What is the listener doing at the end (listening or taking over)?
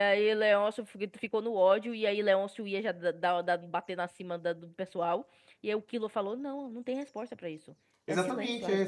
taking over